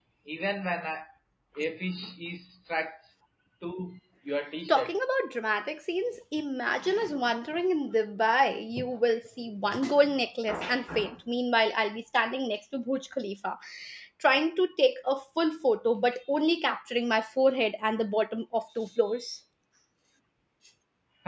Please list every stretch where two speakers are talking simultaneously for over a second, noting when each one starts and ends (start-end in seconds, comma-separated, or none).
none